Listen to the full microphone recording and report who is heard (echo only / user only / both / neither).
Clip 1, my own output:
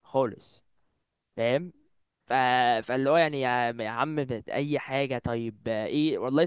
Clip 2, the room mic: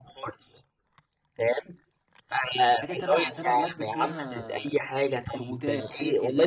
both